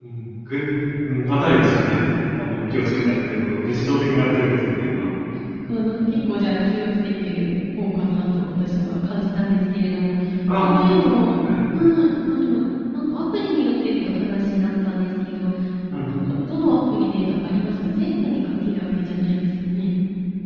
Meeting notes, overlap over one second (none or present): none